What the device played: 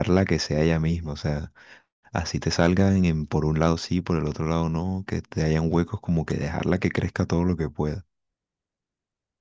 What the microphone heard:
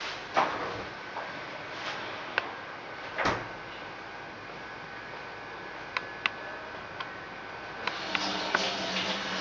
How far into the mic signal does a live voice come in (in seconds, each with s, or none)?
none